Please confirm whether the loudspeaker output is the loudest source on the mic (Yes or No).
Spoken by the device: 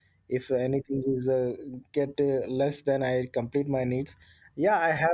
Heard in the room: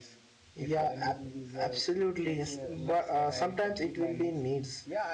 No